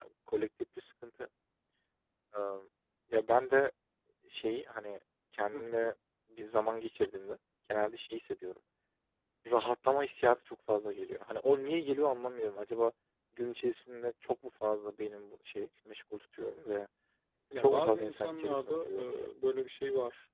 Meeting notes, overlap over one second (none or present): present